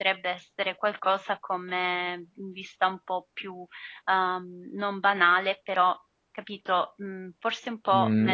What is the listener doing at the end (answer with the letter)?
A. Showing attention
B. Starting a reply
B